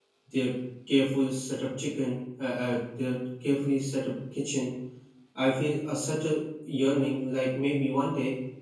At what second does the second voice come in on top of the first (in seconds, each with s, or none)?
none